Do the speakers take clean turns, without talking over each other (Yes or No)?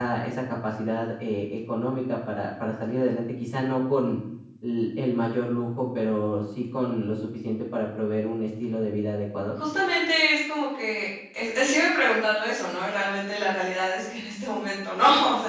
Yes